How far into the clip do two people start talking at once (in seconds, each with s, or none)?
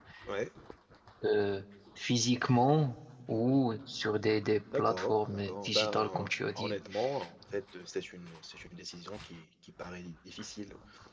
4.7 s